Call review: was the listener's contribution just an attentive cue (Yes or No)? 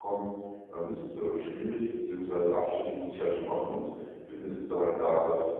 Yes